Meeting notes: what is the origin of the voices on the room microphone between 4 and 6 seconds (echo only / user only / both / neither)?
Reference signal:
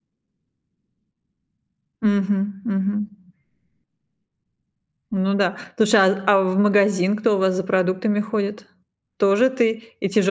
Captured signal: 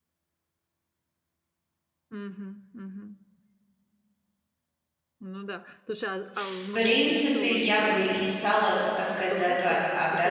echo only